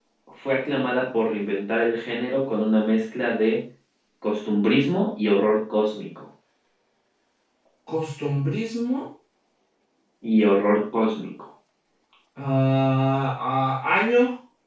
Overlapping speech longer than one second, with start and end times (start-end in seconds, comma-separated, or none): none